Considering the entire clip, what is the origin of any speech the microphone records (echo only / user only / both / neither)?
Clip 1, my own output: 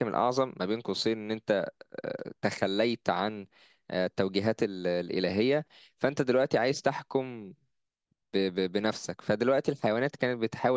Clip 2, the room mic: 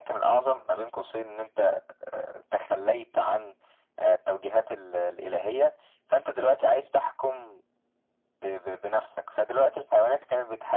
echo only